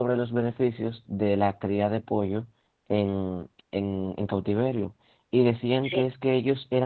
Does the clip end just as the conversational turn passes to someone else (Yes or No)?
No